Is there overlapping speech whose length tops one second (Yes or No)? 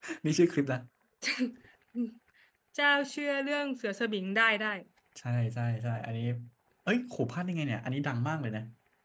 No